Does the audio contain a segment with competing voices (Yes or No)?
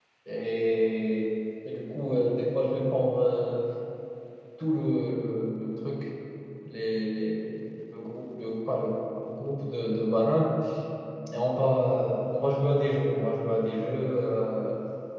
No